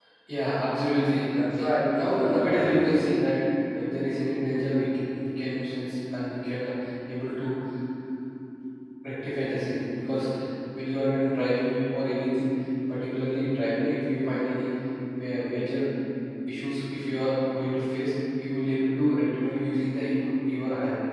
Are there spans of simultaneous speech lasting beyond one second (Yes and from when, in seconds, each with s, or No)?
Yes, from 1.5 s